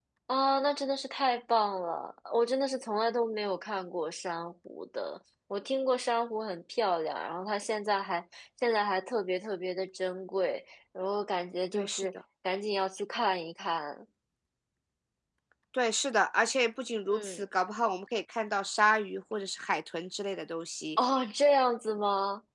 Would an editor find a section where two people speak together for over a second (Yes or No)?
No